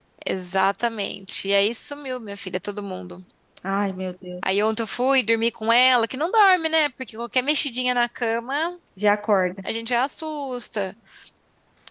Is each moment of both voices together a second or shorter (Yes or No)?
Yes